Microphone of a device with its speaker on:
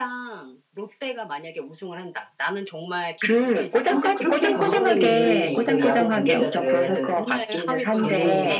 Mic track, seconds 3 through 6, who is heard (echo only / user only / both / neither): both